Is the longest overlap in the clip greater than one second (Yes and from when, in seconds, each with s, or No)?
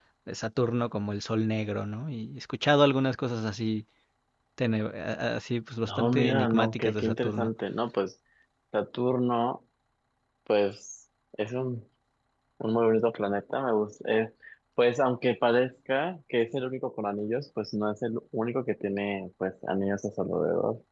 Yes, from 5.8 s